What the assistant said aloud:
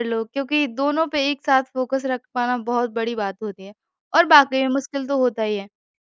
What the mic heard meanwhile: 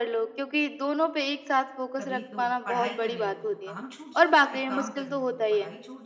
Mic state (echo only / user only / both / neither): both